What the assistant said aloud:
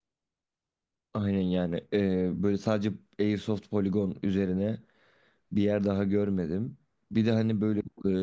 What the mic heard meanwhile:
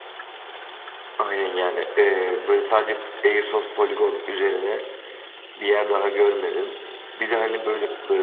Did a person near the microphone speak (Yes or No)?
No